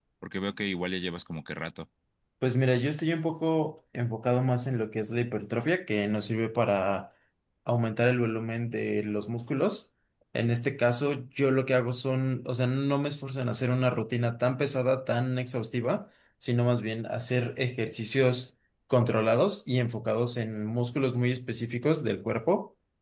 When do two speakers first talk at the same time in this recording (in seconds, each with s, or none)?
none